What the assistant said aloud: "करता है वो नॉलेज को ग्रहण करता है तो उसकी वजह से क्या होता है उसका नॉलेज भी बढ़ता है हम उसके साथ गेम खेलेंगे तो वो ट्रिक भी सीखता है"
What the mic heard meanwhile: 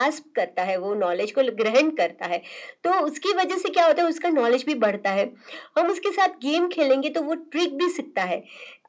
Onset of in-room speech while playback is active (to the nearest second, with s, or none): none